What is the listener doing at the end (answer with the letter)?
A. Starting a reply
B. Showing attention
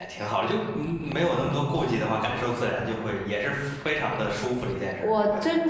A